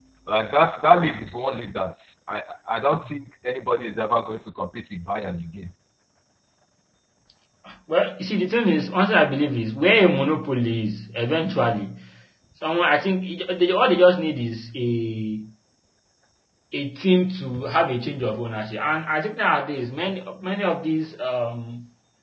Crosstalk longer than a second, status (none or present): none